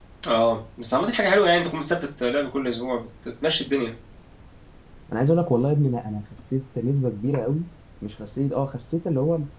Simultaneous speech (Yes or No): No